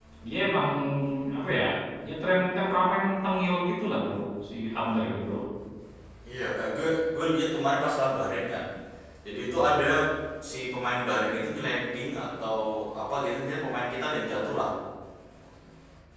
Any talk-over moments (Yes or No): No